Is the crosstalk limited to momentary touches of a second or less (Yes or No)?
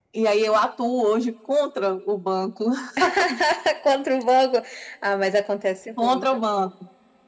Yes